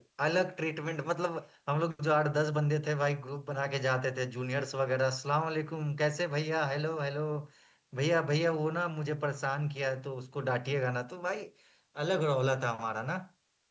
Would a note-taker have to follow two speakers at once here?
No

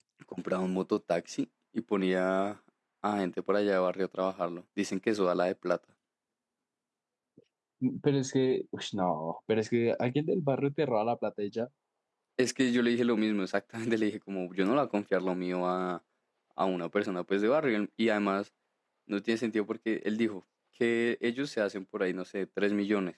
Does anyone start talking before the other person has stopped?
No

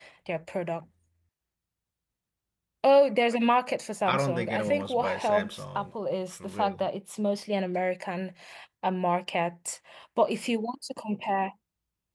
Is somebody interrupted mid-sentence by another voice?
Yes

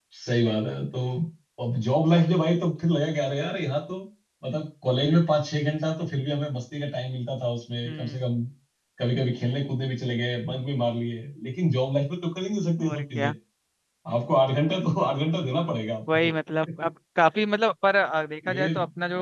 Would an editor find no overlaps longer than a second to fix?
Yes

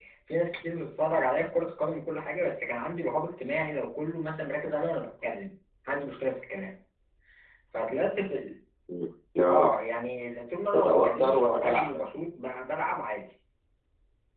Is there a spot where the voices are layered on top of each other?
Yes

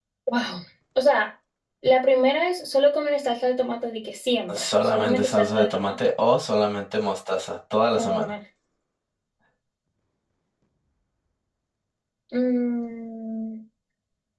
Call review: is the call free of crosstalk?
No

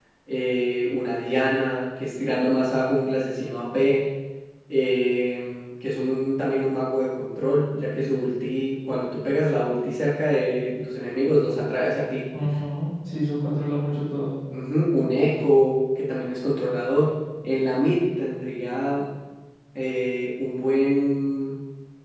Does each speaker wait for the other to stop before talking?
Yes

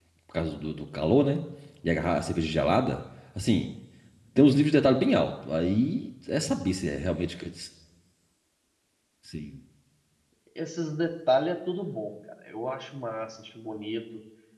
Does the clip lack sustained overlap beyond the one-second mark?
Yes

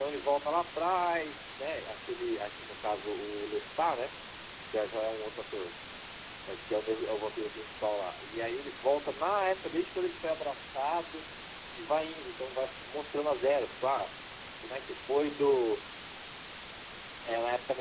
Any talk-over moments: No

